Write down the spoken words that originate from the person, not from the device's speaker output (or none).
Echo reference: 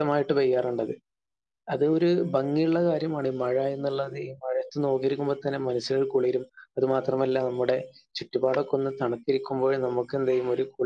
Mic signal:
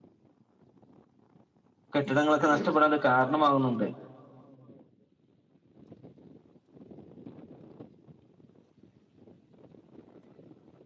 കെട്ടിടങ്ങളൊക്കെ നഷ്ടപ്പെടാൻ കാരണമാകുന്നുണ്ട്